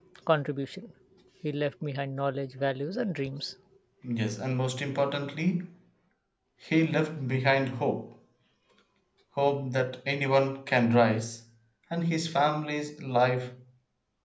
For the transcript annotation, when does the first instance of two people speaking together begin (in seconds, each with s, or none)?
none